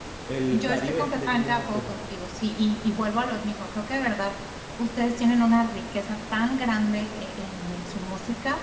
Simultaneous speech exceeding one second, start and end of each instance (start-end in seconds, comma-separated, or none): 0.5-1.9